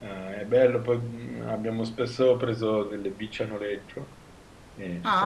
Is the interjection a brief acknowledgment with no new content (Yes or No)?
No